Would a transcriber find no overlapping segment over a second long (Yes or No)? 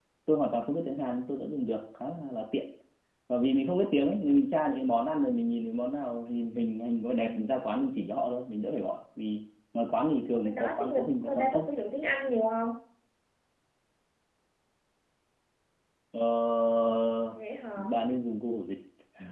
No